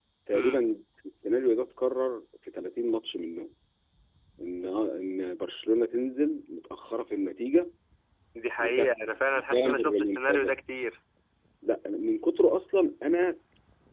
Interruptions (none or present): present